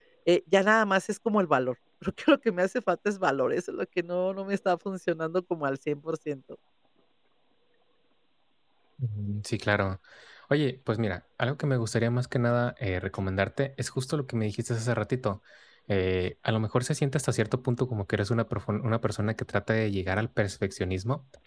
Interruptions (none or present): none